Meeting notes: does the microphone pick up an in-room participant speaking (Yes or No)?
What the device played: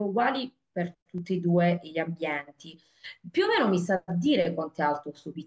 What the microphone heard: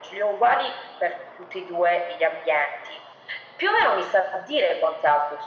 No